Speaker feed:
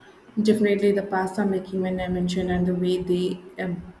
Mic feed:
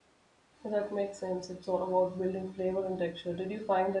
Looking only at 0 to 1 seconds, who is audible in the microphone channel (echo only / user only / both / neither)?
user only